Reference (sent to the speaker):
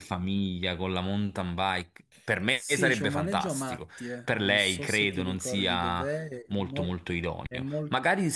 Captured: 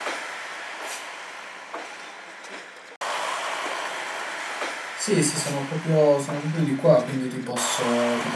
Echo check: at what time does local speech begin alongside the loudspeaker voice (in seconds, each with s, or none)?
4.9 s